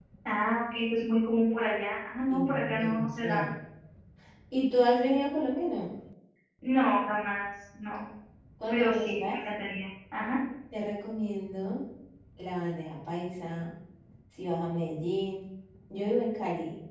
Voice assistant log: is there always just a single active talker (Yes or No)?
No